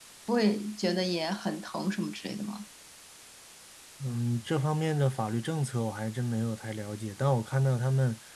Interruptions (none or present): none